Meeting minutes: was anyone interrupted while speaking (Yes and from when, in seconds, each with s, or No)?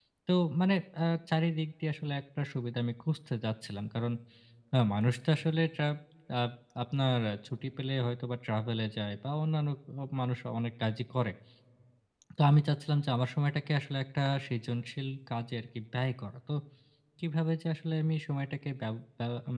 No